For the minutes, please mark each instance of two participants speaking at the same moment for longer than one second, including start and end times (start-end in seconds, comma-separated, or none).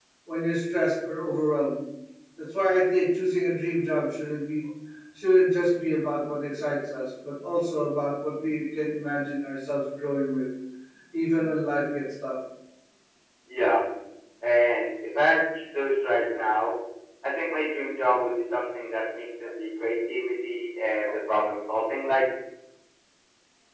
none